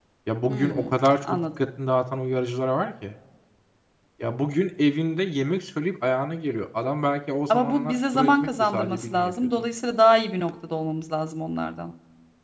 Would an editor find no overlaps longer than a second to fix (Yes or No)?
No